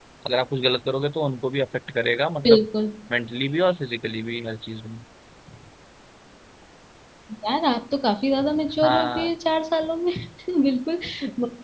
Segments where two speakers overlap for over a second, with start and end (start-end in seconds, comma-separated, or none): none